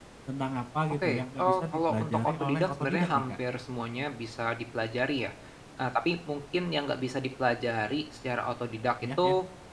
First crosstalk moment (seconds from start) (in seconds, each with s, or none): 1.0 s